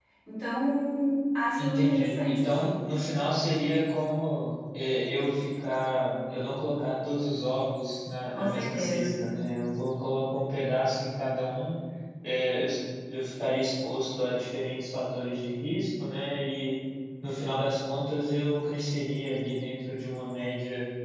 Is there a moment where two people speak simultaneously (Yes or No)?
Yes